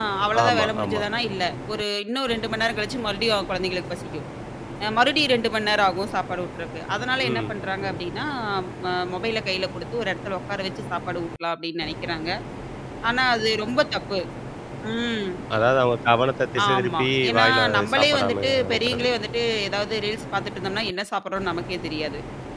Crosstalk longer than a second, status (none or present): present